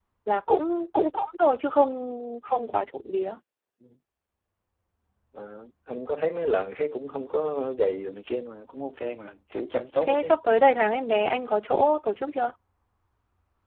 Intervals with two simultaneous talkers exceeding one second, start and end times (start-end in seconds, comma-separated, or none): none